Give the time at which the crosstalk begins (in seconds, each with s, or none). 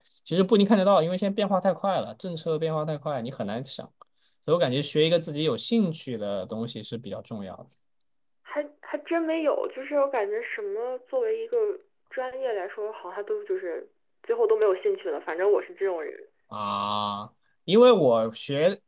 none